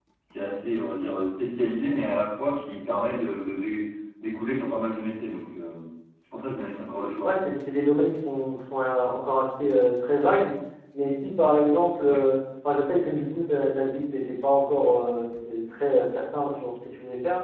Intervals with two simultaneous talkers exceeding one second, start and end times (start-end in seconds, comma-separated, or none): none